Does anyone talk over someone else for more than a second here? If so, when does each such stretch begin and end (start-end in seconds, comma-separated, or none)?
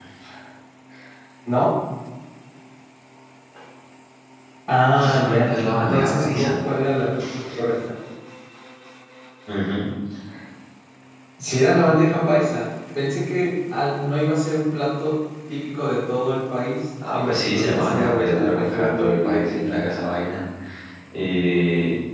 5.0-6.6, 17.1-19.8